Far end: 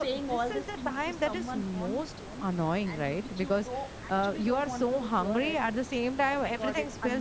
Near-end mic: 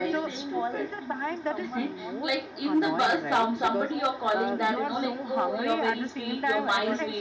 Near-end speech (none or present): present